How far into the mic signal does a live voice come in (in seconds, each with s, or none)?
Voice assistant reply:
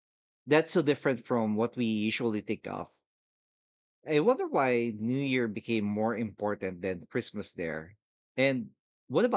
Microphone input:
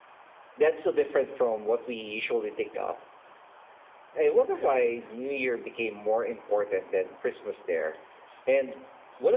none